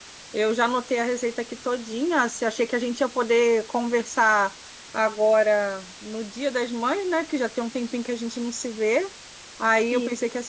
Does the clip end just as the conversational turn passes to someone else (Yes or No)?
No